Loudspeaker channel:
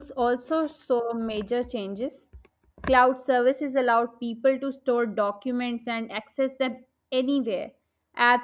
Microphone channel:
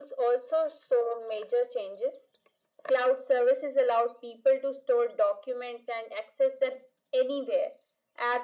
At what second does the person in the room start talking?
none

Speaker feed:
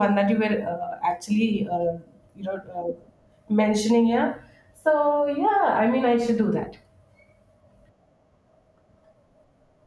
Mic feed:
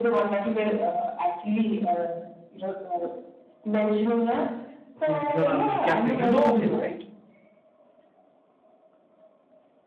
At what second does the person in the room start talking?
5.0 s

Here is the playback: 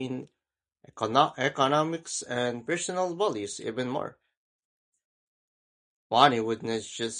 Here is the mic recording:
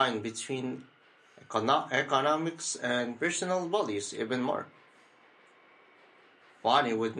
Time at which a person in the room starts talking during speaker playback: none

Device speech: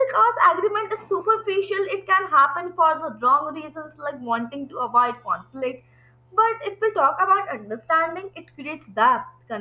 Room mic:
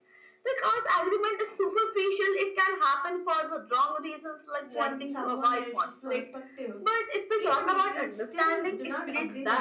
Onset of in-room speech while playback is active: 4.7 s

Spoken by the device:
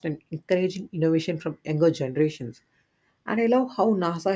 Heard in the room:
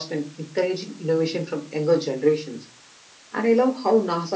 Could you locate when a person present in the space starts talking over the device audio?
none

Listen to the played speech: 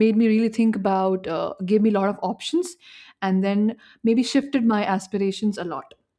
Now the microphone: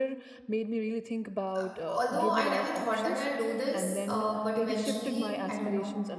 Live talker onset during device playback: 1.5 s

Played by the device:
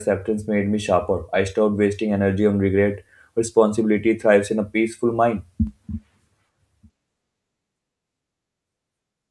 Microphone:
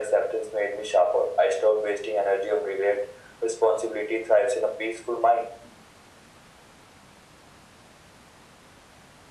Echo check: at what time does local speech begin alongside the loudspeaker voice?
none

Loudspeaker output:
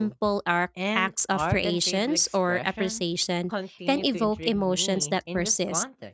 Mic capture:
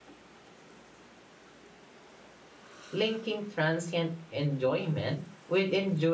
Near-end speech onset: 2.9 s

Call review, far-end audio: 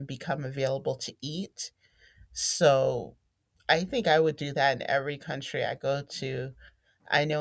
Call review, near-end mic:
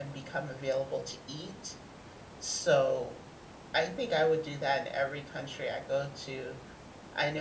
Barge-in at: none

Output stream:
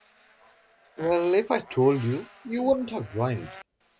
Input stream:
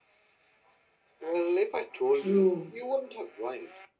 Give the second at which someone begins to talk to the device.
2.1 s

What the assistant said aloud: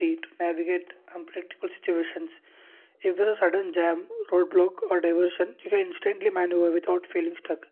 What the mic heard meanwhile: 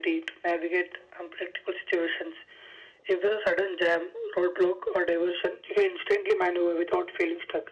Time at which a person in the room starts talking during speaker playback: none

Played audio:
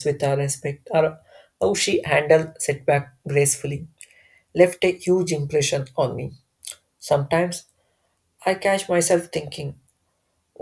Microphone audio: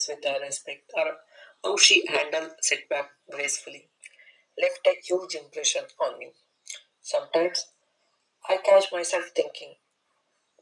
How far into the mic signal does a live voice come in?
none

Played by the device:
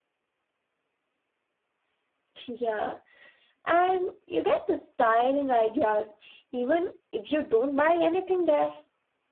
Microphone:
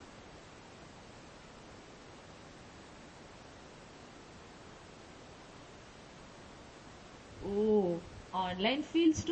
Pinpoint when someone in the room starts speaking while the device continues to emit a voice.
7.4 s

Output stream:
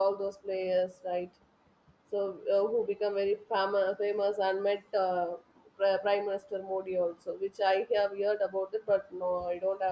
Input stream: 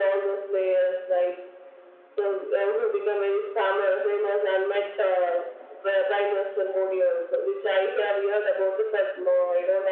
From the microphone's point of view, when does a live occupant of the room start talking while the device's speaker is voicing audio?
none

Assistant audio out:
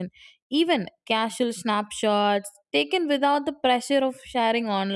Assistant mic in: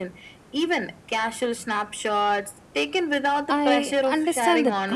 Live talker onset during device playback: 3.5 s

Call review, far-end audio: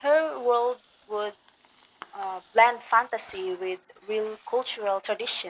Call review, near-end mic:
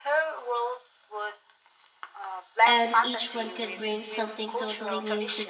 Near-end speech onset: 2.6 s

